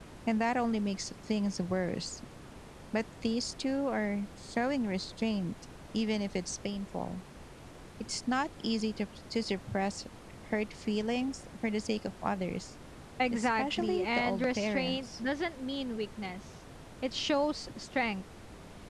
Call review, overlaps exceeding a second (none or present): present